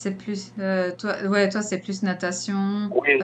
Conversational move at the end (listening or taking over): taking over